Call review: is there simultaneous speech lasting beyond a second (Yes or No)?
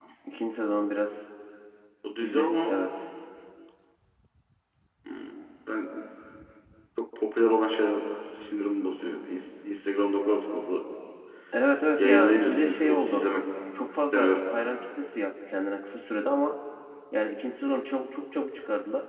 Yes